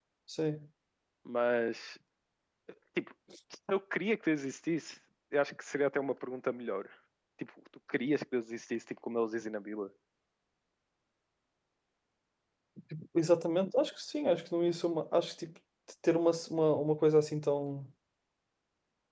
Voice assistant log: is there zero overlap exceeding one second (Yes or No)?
Yes